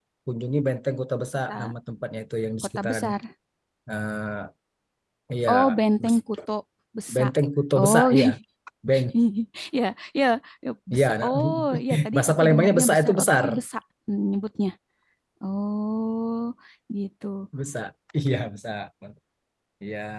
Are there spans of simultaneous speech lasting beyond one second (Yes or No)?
Yes